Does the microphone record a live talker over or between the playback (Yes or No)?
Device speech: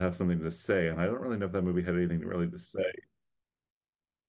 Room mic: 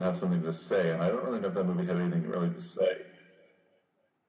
No